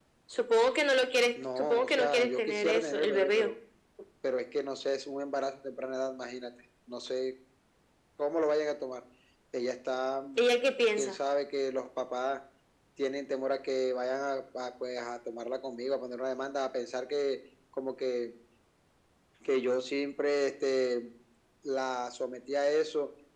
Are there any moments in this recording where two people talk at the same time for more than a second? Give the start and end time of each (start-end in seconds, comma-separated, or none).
1.6-3.5